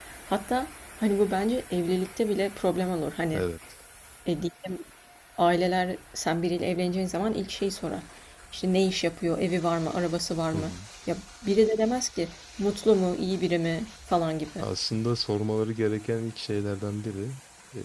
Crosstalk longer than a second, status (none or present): none